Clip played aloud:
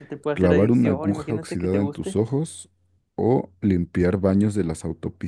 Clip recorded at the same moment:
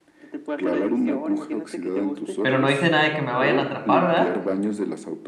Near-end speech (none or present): present